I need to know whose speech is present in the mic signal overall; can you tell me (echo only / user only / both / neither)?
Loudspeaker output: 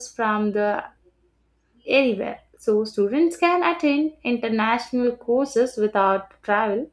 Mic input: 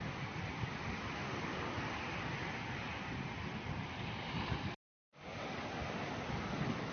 neither